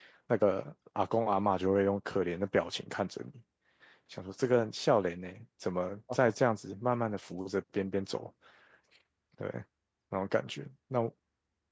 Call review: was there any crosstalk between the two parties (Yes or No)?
No